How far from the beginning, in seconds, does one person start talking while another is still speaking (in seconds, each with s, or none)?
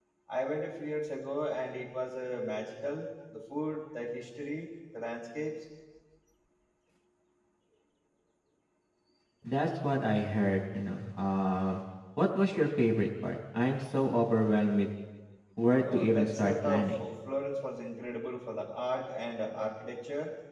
15.8 s